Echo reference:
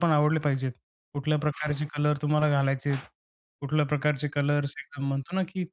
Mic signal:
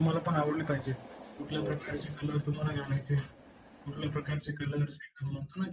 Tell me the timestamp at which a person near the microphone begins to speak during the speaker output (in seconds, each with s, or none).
1.6 s